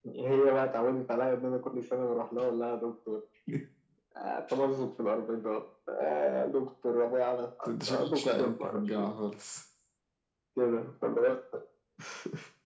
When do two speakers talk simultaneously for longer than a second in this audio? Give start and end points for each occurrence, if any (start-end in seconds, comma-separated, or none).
7.7-9.1